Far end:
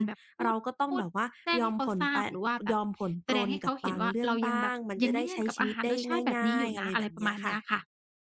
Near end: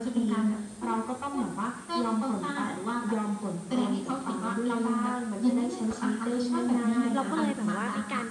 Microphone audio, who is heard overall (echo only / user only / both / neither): both